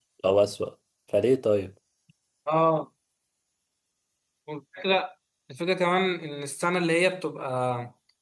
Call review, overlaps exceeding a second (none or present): none